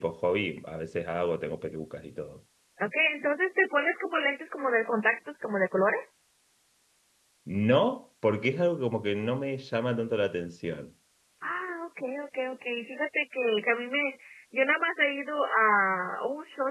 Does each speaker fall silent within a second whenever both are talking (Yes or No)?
Yes